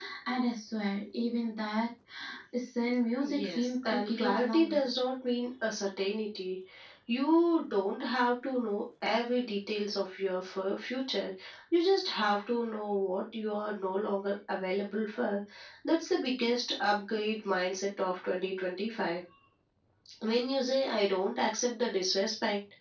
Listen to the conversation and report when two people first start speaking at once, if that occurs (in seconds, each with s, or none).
3.2 s